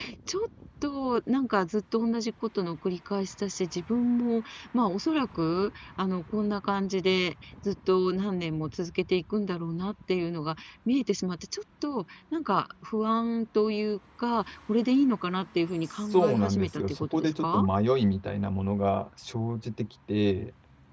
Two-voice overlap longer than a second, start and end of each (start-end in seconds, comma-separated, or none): 16.1-17.7